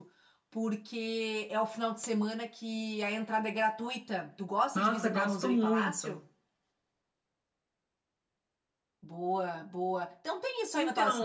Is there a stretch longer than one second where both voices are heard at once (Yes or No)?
Yes